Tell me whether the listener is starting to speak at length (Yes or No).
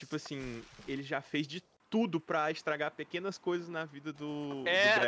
Yes